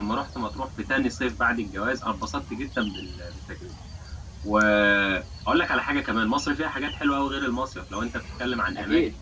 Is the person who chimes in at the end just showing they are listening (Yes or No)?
Yes